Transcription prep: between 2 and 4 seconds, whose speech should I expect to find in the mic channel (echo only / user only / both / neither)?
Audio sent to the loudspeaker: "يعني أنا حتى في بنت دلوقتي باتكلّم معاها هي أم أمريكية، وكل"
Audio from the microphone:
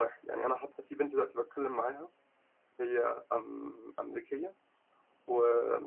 echo only